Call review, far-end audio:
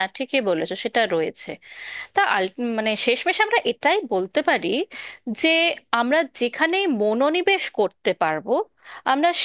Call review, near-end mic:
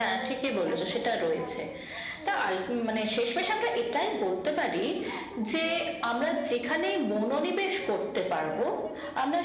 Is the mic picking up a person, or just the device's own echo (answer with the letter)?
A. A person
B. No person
A